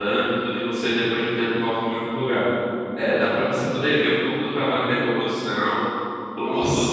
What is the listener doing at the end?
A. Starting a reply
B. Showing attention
B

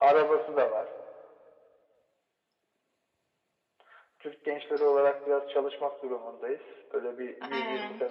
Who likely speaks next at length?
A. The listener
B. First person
A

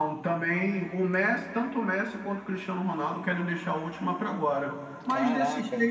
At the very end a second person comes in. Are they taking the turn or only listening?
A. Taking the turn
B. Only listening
B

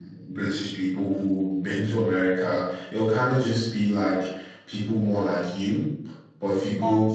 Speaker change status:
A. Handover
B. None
B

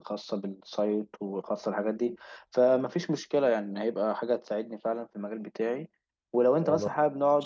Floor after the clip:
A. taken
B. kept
B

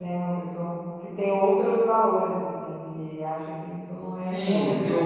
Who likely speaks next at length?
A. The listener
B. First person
A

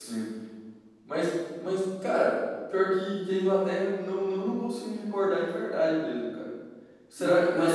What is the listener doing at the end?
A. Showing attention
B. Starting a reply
B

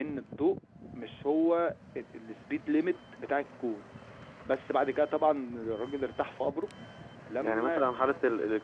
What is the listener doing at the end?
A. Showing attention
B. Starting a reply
B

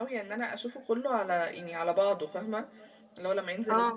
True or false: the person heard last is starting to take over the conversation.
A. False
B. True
A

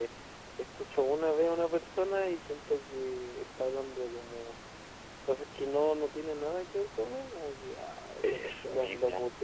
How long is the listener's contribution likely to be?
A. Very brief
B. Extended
A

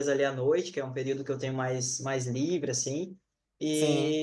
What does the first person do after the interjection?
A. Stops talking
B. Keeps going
B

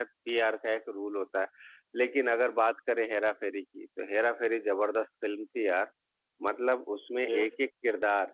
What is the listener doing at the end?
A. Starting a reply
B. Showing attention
B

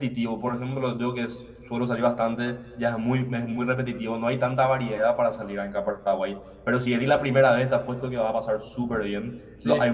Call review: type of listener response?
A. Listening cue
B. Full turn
A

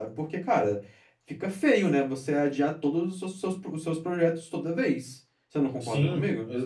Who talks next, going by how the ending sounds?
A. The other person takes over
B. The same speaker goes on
A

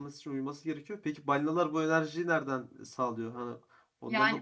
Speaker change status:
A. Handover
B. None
A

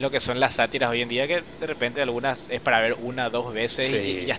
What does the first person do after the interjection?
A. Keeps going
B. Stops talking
A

